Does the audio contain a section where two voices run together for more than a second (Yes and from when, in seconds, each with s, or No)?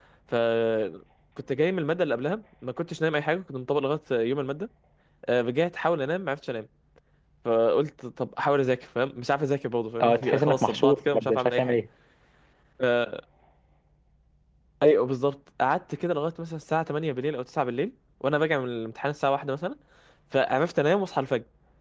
Yes, from 10.0 s